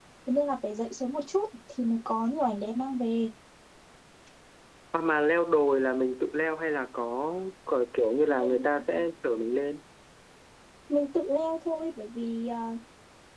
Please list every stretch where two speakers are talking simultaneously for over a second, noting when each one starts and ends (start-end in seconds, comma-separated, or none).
none